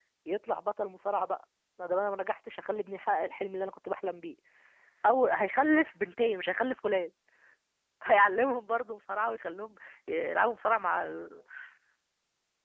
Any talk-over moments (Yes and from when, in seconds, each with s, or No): No